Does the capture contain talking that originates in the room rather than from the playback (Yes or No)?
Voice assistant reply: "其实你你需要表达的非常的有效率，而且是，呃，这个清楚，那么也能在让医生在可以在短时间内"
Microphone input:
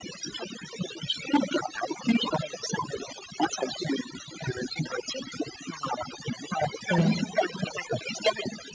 Yes